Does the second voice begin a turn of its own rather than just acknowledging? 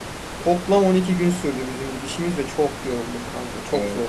Yes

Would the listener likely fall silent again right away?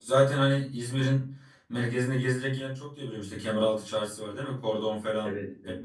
No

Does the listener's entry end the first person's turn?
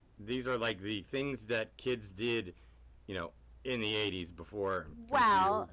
Yes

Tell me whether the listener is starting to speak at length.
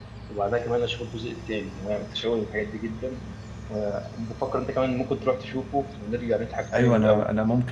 Yes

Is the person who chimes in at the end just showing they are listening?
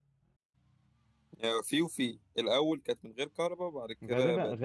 No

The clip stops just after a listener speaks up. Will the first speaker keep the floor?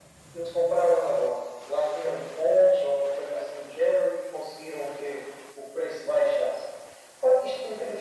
Yes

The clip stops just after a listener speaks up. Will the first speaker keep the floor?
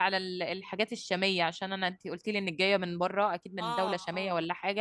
Yes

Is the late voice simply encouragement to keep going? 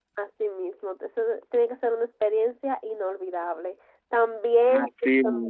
Yes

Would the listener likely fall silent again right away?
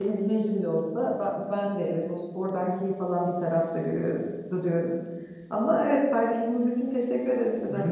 No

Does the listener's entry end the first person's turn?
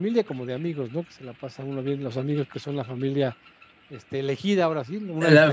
Yes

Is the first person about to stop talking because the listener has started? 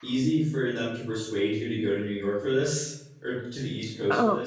Yes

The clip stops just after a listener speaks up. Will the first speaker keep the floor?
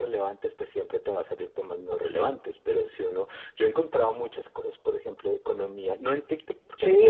No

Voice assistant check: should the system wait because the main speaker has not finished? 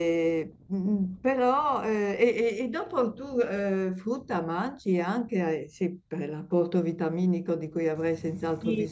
No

